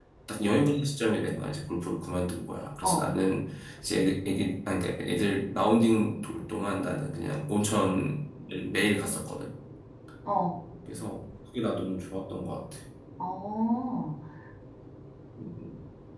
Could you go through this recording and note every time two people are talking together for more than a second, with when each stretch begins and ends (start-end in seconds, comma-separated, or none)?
none